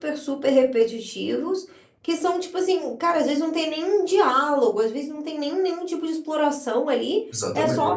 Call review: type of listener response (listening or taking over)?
listening